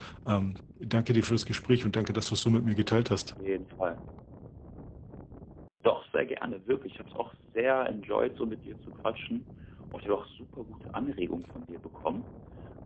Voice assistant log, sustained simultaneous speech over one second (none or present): none